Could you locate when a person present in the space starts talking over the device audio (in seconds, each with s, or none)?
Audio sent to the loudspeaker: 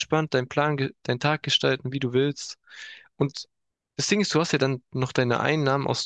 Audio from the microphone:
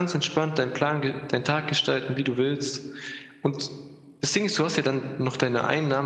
none